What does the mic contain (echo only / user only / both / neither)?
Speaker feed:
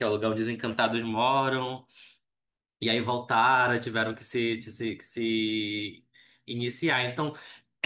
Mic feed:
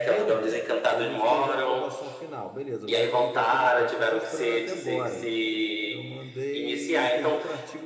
both